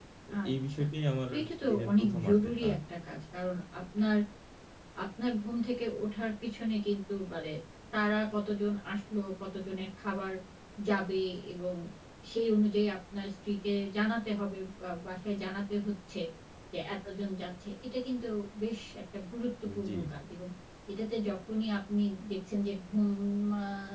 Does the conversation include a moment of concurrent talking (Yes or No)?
Yes